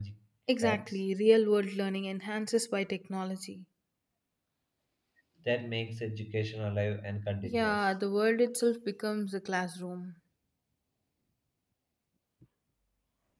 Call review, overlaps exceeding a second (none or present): none